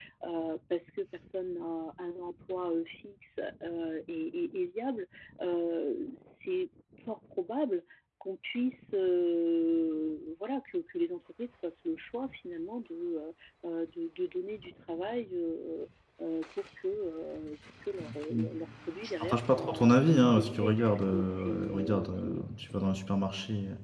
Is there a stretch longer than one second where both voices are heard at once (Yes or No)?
Yes